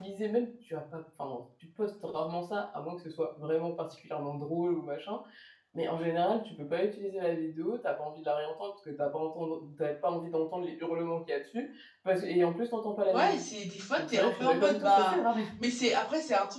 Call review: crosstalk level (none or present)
present